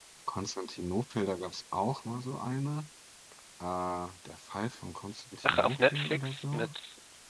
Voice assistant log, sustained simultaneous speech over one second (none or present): present